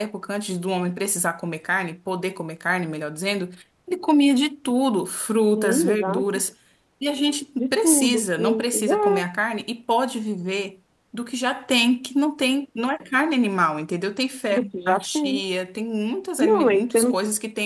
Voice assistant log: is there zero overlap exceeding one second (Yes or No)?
No